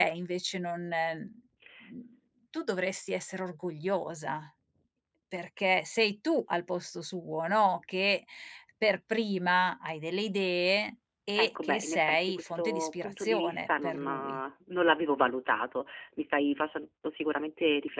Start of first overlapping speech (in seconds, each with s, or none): 11.3 s